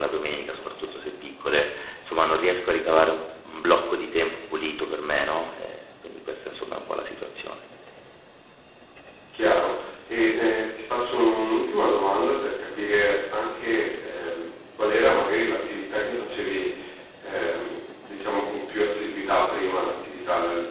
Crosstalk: none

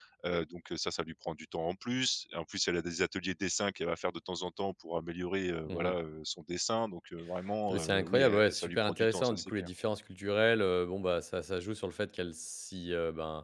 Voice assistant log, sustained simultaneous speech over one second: present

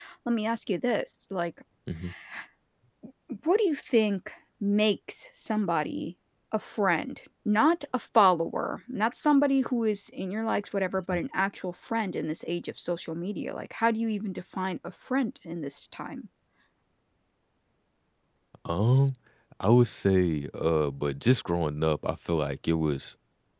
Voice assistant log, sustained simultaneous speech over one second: none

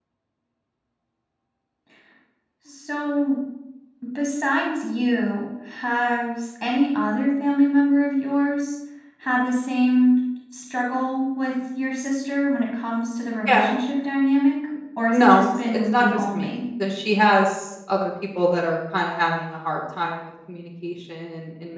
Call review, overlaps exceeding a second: present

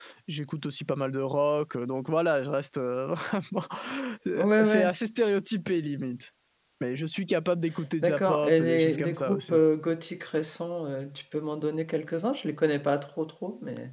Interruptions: present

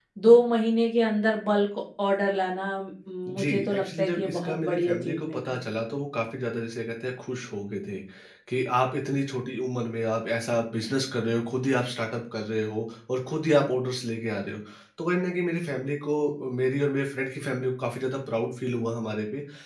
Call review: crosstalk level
present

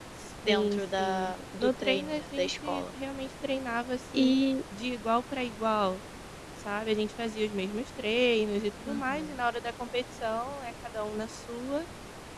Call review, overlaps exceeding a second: present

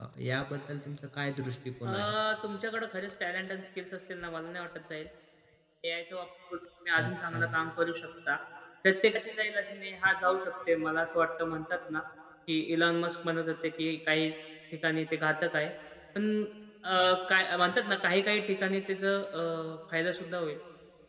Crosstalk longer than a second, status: none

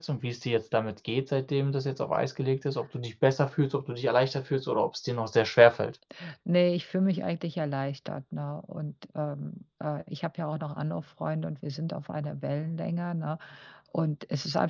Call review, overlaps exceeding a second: none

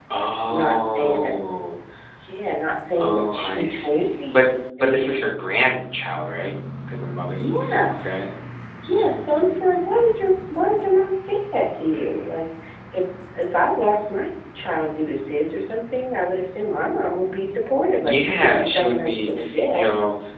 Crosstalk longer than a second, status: present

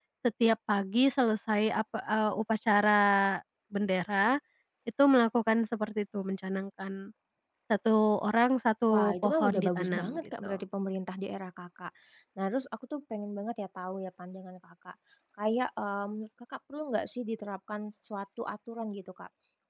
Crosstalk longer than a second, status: present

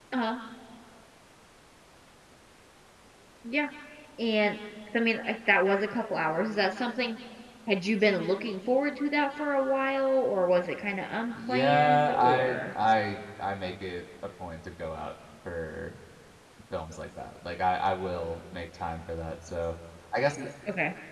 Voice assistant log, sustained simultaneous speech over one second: present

